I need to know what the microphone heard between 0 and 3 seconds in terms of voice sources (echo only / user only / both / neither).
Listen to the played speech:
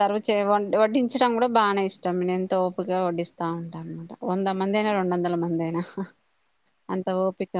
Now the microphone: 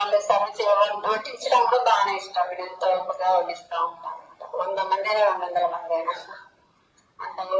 echo only